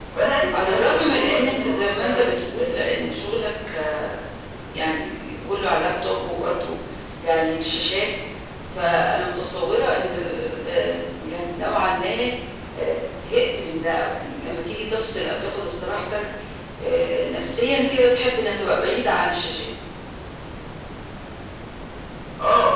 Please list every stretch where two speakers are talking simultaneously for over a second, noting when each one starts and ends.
0.5-2.7

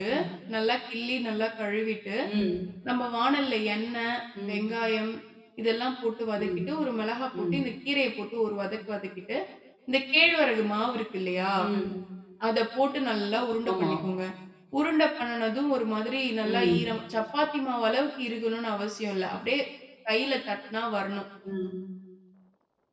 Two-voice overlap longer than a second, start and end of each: none

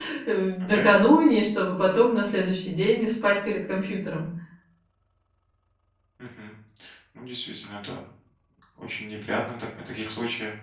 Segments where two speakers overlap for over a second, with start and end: none

